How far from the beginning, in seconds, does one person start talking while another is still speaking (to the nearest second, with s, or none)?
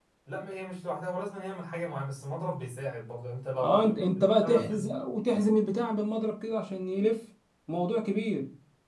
4 s